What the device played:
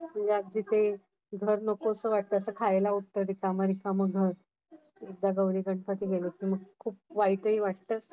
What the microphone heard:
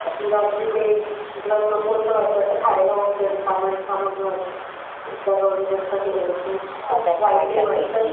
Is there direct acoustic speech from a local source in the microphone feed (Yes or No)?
Yes